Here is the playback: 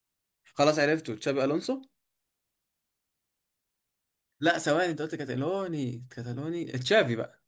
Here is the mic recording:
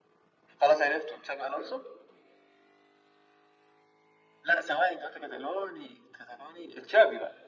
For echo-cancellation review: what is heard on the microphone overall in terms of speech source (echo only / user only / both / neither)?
echo only